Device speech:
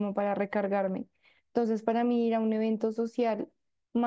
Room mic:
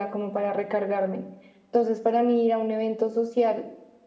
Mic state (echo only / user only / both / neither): echo only